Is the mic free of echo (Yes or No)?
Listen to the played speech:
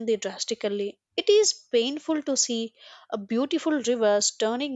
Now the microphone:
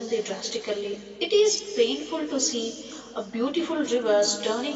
No